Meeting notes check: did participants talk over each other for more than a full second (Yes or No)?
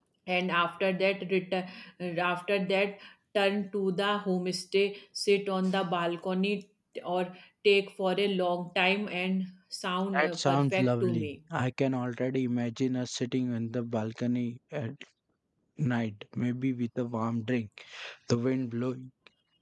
Yes